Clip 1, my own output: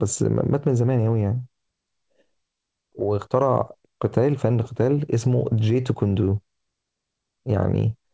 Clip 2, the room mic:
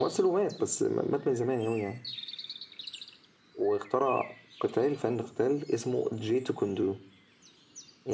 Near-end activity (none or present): none